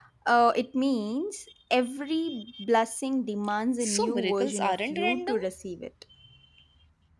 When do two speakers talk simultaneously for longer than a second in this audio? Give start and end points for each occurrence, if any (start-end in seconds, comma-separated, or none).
3.8-5.4